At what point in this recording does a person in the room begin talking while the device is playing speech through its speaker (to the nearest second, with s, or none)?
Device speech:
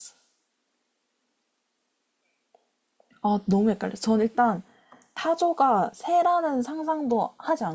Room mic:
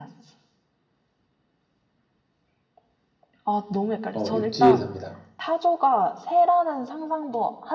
4 s